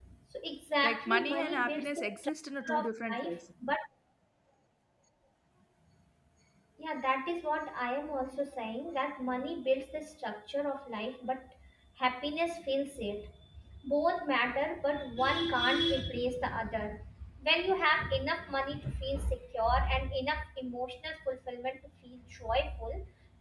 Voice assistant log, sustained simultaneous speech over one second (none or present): present